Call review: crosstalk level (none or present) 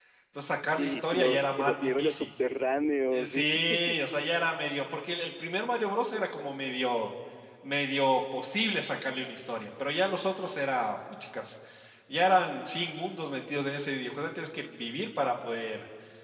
present